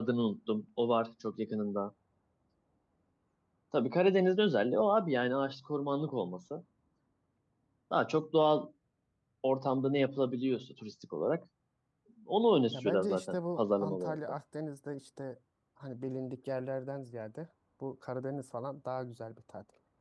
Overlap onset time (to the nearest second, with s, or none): 13 s